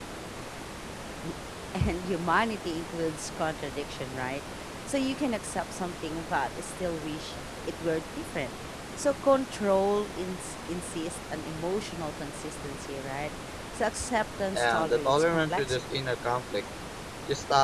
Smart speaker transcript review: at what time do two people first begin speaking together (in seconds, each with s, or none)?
14.5 s